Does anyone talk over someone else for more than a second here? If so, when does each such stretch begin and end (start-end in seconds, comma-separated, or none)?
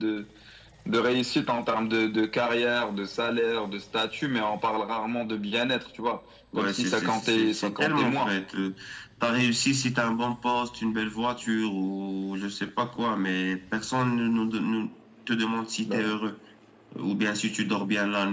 6.6-8.3